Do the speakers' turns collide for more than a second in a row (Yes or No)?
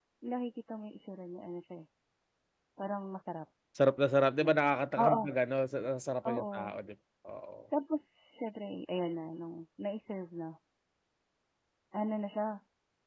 No